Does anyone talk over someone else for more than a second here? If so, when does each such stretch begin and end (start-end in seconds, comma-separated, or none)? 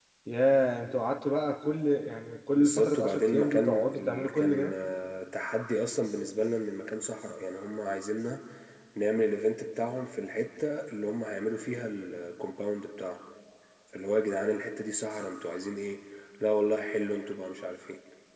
2.5-4.7